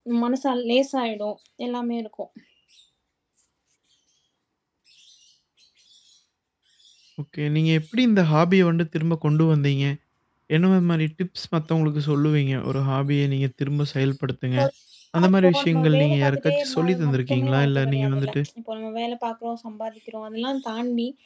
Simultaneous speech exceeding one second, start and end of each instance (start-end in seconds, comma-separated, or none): 15.3-18.3